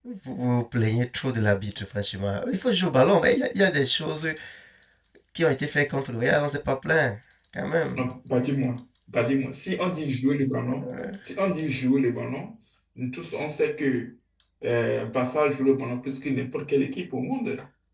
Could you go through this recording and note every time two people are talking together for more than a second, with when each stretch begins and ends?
none

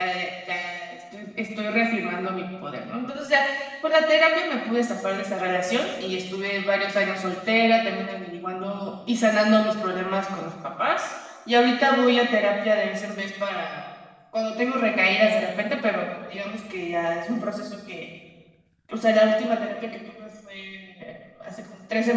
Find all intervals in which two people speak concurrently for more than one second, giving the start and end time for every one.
none

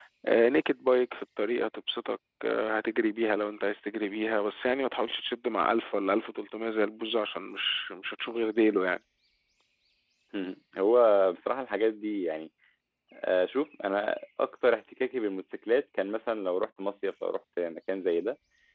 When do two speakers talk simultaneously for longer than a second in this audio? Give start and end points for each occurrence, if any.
none

